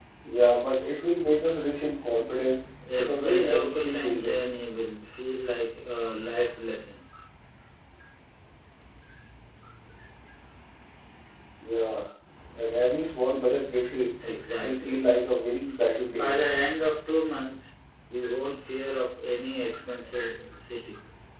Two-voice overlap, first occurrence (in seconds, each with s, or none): 3.0 s